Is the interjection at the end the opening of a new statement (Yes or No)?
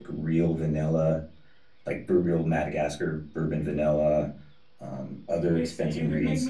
Yes